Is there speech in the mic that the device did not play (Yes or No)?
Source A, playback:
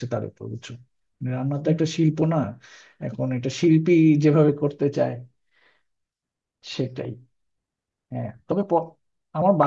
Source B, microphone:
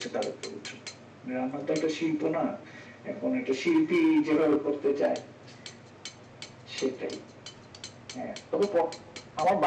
No